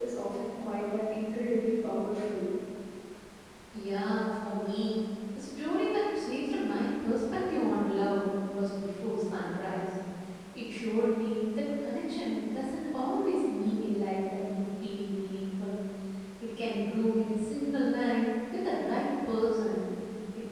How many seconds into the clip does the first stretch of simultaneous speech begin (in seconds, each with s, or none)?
none